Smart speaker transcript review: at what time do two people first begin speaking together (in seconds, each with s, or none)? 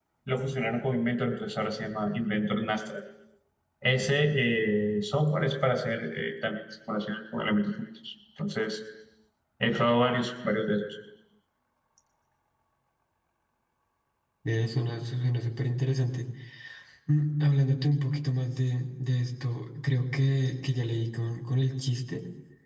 none